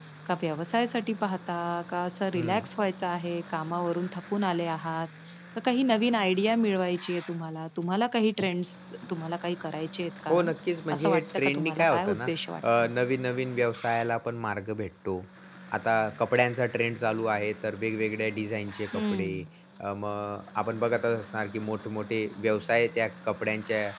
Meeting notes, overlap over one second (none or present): present